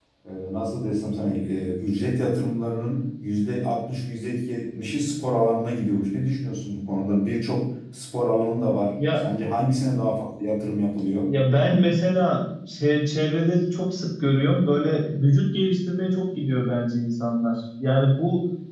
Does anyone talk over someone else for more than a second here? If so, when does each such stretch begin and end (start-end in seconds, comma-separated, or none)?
none